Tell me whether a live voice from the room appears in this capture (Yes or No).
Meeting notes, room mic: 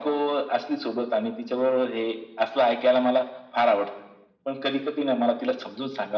No